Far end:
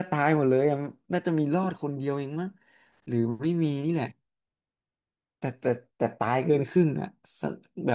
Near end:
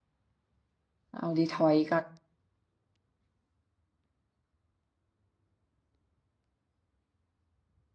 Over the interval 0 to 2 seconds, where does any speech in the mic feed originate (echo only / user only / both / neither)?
user only